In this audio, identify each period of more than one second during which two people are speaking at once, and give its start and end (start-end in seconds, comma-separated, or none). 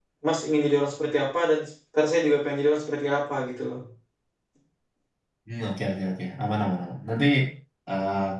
none